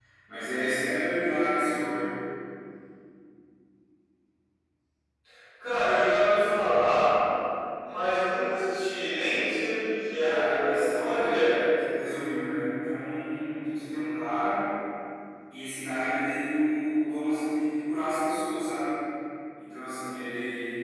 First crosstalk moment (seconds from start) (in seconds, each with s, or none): 10.2 s